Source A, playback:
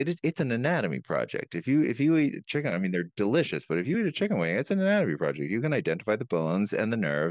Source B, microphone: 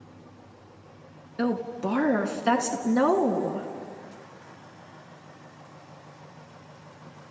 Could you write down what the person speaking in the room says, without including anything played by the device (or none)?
Oh, barf. That's no.